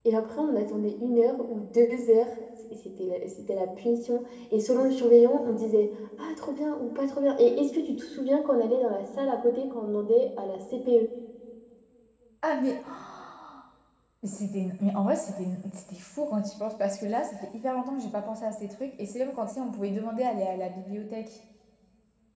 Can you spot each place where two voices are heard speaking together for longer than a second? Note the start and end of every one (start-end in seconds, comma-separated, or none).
none